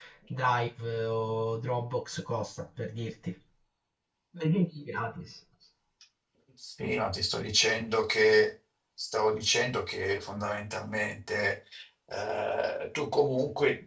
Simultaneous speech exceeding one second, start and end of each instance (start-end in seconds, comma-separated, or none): none